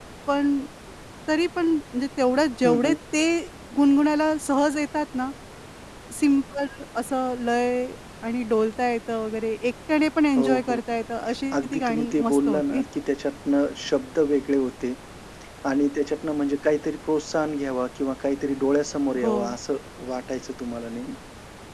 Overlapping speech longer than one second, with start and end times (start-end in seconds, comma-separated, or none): 11.6-12.8